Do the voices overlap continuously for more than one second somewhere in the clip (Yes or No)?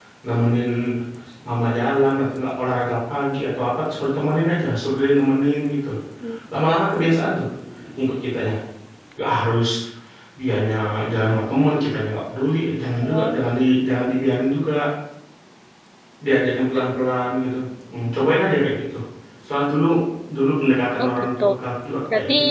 No